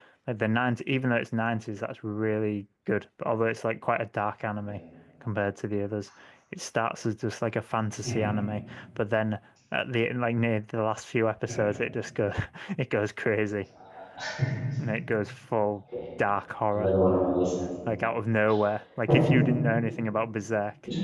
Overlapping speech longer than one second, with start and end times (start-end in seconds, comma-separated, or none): none